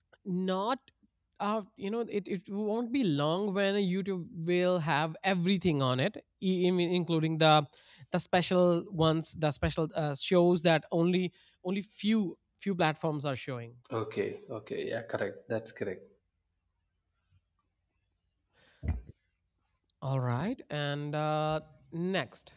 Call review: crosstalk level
none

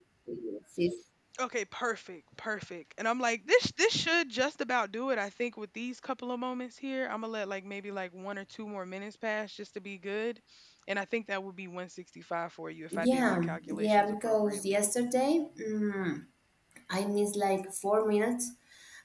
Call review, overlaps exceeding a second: present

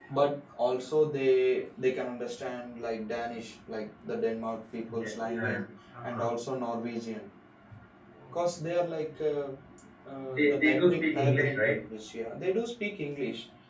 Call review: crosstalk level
present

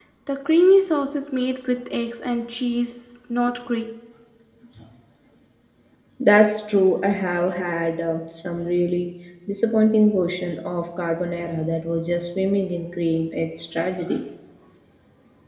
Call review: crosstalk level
none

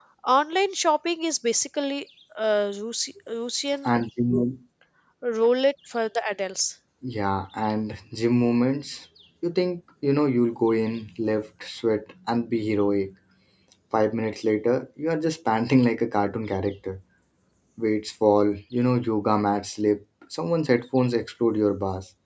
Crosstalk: none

